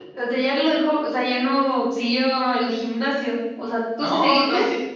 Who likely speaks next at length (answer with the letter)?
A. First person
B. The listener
B